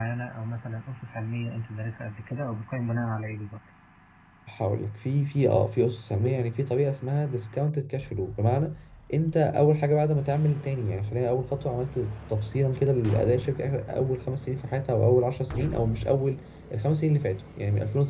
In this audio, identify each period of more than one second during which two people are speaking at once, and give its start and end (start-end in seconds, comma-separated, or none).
none